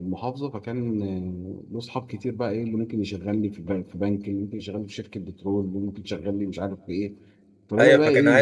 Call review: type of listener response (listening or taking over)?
taking over